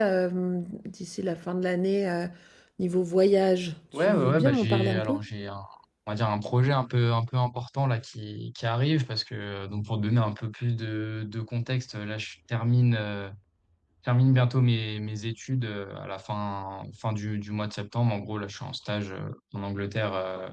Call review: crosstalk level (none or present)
present